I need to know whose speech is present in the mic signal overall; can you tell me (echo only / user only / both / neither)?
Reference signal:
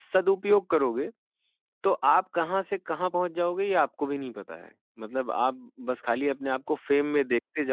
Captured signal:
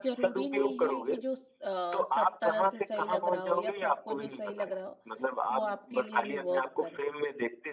both